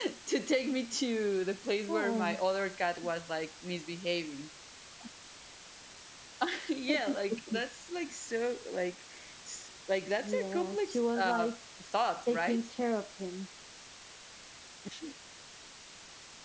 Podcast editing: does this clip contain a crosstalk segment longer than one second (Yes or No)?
Yes